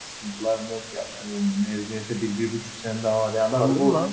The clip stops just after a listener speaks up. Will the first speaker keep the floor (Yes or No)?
No